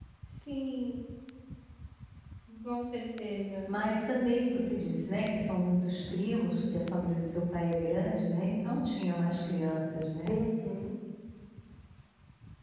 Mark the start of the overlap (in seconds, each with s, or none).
none